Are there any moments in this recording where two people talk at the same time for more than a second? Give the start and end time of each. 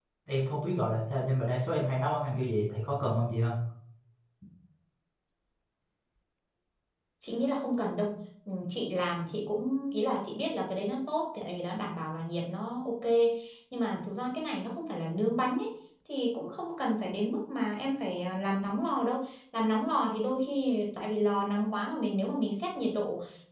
none

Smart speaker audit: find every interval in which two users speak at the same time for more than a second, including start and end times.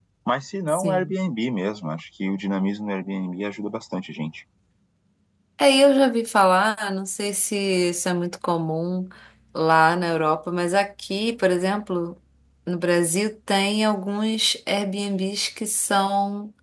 none

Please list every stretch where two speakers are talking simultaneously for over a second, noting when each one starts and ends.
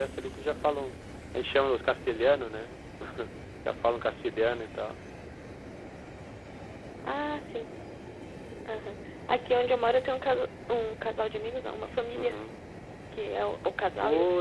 none

